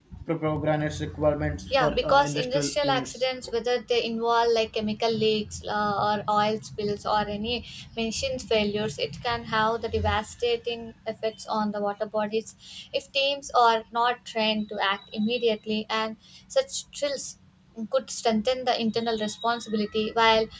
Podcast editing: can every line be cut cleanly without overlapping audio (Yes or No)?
No